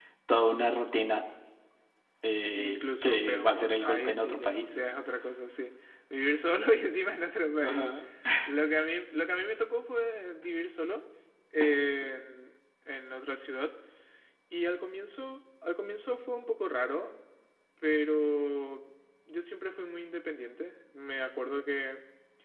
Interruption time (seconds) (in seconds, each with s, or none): 2.5 s